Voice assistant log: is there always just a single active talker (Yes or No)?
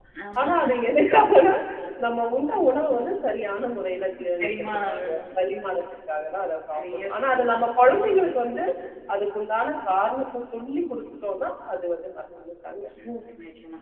No